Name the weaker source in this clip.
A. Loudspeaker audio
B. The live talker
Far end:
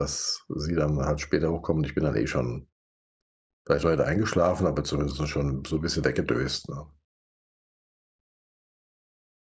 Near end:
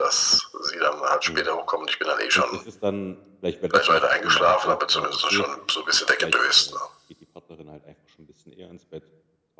B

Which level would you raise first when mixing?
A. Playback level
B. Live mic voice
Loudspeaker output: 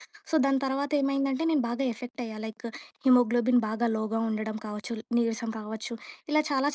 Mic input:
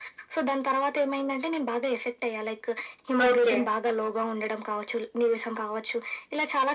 A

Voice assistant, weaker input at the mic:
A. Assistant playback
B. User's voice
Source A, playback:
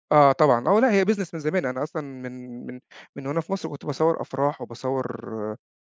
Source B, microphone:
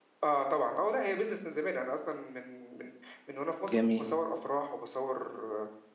A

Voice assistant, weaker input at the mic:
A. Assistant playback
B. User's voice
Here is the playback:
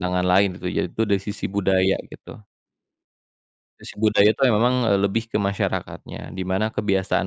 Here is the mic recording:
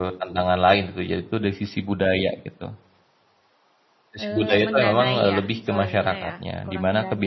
B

